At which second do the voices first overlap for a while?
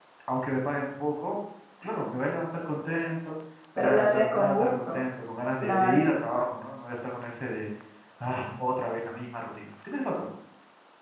4 s

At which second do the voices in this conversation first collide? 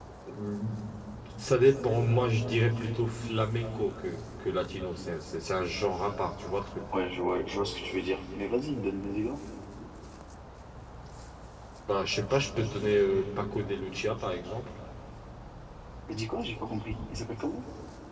none

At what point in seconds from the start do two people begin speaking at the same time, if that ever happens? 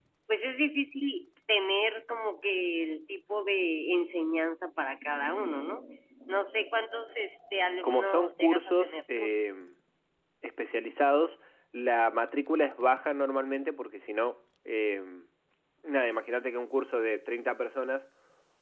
8 s

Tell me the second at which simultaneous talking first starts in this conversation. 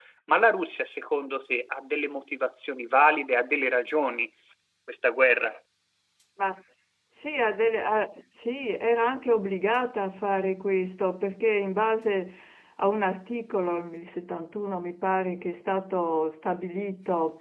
none

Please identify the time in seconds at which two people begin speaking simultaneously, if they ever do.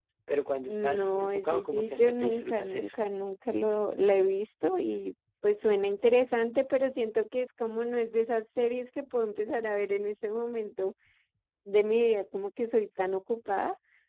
1 s

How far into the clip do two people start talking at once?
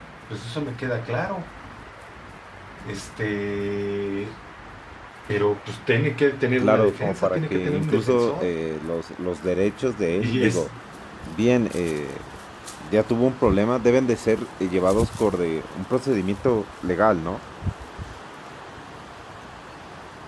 7 s

